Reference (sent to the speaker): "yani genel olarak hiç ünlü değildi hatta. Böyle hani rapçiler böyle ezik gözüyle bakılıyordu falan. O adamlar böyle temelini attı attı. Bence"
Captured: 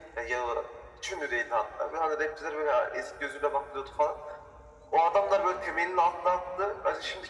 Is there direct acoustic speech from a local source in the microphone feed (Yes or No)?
No